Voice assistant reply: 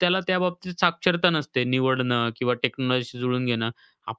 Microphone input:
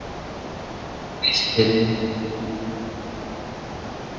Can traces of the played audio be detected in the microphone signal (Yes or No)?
No